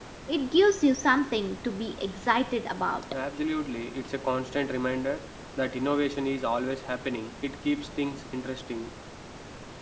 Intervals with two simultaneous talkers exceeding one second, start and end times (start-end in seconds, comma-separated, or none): none